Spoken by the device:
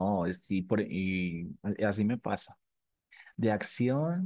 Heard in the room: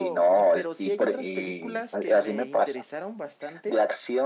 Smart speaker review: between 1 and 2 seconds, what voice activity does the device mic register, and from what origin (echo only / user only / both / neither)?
both